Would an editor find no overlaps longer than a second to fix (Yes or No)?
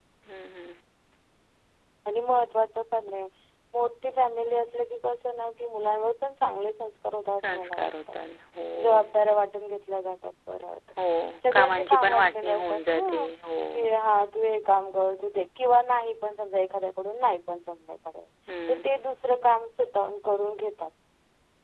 No